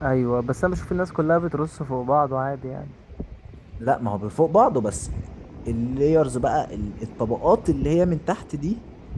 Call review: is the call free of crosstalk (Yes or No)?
Yes